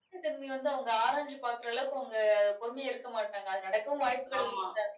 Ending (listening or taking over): listening